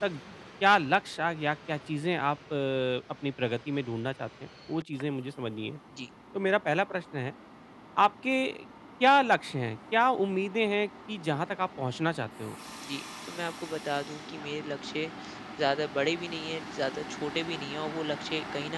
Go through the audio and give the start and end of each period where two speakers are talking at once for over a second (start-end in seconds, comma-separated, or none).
none